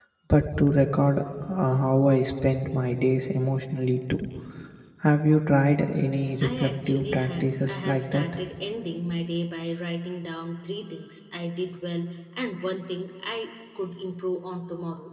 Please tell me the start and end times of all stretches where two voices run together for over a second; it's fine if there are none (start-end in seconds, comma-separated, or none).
6.4-8.2